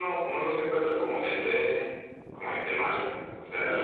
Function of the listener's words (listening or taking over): taking over